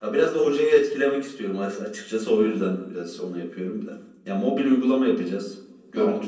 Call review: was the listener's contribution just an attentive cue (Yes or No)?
Yes